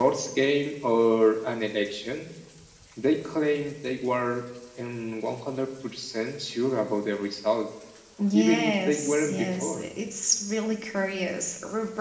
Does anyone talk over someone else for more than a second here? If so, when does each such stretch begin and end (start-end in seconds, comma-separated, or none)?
8.3-9.8